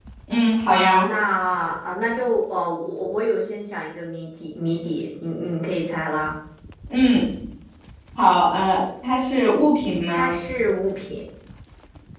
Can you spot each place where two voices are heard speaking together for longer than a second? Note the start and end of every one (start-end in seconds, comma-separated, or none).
none